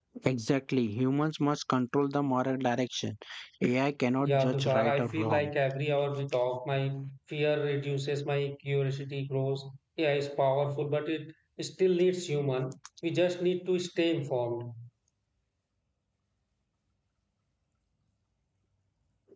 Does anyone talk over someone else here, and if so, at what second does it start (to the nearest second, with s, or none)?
4 s